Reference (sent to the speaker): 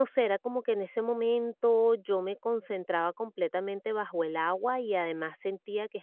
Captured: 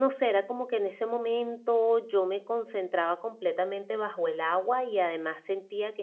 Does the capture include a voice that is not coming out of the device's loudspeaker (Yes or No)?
No